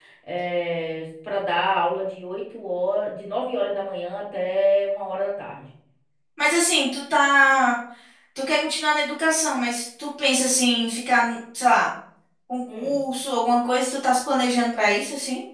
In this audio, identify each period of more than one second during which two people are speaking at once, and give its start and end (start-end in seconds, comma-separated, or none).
none